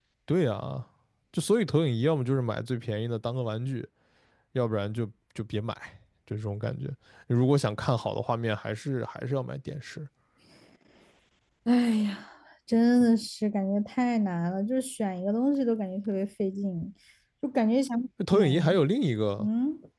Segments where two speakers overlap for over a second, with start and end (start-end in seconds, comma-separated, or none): none